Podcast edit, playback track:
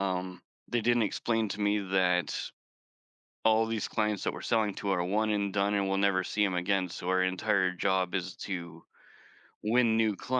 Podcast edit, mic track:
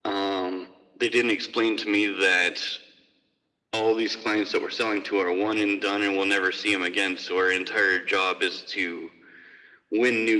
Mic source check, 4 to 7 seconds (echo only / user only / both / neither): echo only